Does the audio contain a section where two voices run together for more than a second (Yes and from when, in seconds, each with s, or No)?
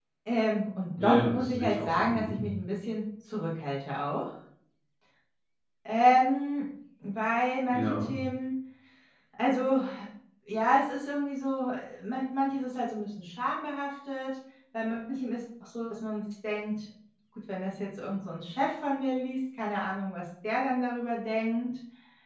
Yes, from 1.0 s